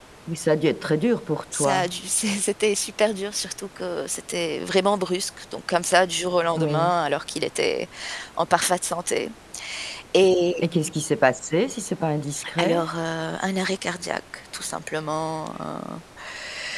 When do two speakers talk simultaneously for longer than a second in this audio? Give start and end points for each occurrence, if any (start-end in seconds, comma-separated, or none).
none